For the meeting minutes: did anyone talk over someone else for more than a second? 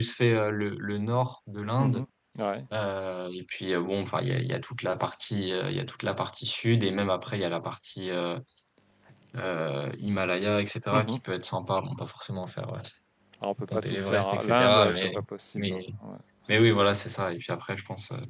Yes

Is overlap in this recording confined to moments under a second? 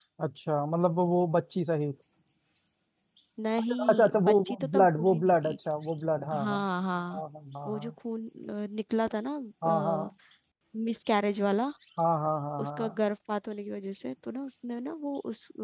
No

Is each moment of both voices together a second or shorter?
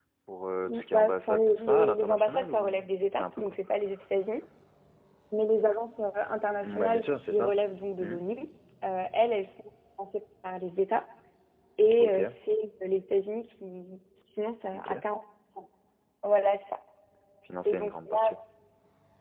No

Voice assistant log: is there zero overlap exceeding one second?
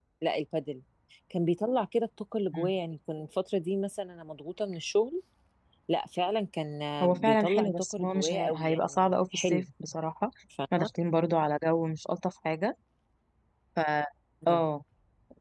No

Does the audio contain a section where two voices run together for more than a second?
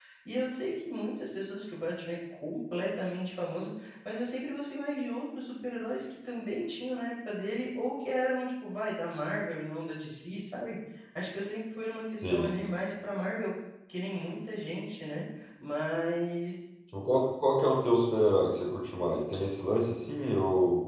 No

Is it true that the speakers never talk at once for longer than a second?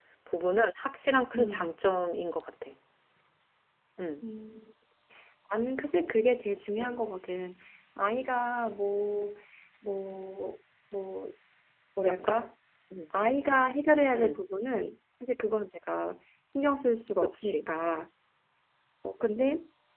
Yes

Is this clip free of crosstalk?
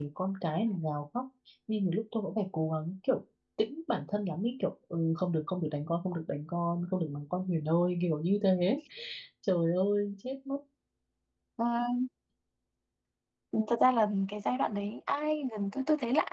Yes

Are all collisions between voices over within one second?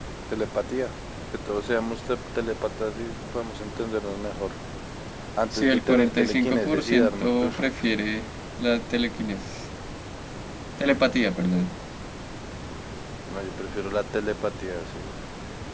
No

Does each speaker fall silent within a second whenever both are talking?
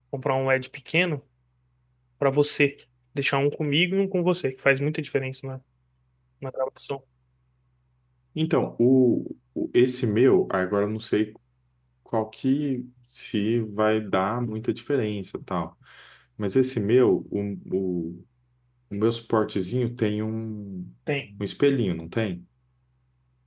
Yes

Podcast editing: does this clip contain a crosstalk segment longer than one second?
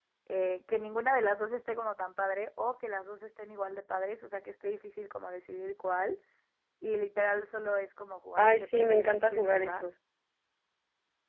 Yes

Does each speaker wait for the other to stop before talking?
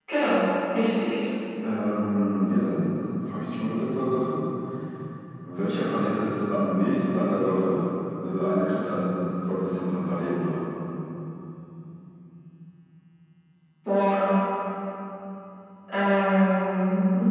Yes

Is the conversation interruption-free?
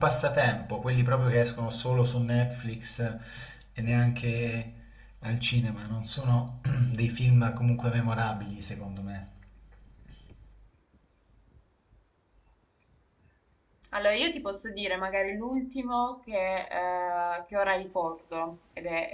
Yes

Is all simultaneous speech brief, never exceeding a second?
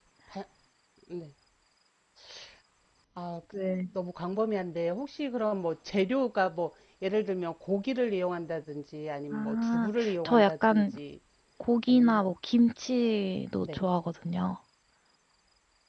No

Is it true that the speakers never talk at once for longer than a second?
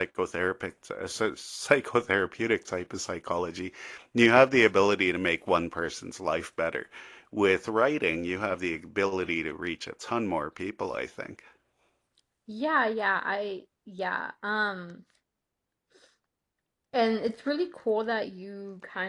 Yes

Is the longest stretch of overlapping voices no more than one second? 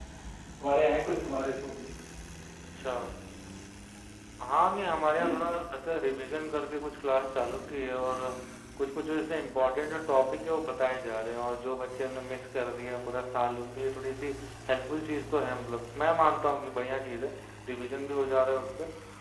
Yes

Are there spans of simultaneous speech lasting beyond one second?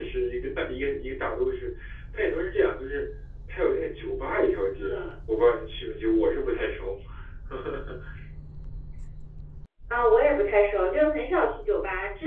No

